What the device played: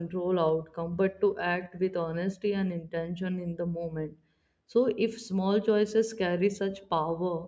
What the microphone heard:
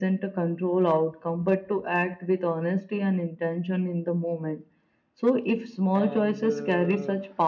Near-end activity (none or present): present